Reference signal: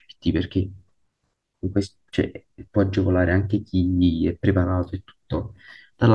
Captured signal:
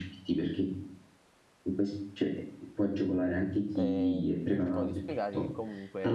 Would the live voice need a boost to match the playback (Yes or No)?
Yes